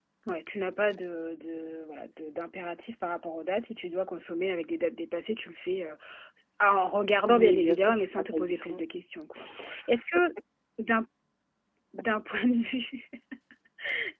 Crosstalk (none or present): present